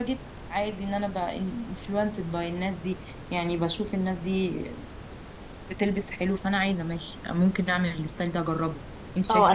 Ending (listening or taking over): taking over